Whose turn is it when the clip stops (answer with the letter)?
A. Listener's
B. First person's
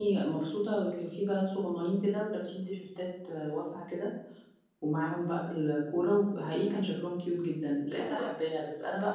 B